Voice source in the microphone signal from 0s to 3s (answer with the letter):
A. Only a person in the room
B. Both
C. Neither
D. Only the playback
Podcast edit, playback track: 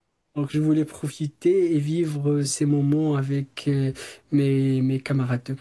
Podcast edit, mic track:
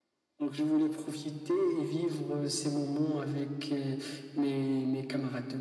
D